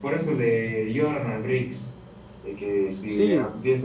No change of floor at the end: Yes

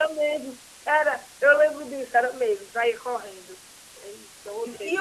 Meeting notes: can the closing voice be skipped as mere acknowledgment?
No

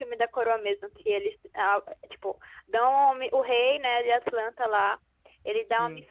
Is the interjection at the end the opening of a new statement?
No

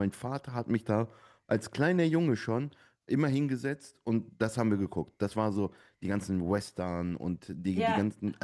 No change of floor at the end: Yes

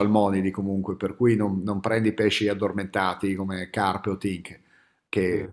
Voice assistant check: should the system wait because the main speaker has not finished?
Yes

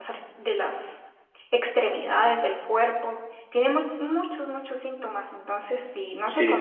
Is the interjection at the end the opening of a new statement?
No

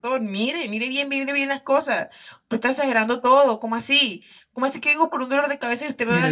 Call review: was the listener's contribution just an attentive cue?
No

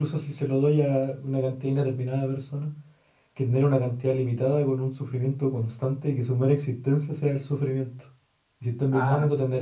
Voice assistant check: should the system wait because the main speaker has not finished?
Yes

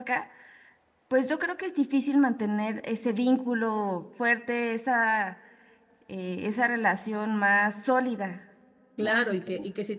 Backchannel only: No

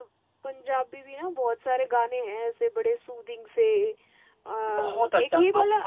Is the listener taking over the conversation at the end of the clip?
Yes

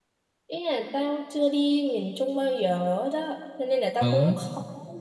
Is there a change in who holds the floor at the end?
No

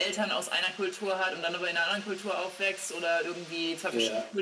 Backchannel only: Yes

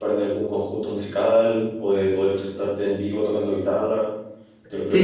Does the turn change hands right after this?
Yes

